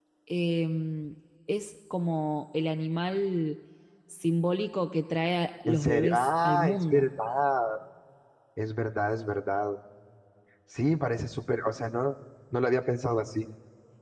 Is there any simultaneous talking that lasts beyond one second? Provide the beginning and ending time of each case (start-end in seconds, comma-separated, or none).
5.7-7.0